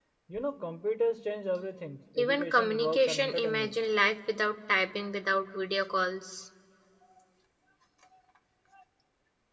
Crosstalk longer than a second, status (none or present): present